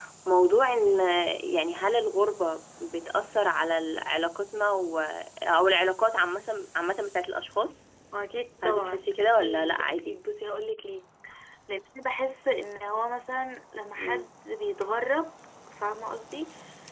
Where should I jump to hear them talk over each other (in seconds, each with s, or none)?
8.6 s